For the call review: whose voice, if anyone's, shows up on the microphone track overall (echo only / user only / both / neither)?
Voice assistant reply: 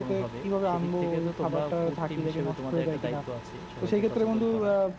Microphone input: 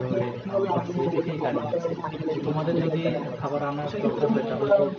both